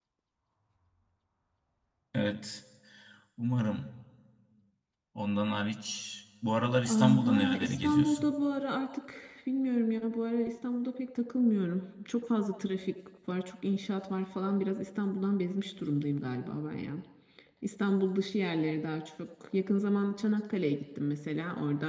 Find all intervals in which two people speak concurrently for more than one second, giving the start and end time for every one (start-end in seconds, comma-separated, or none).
6.9-8.3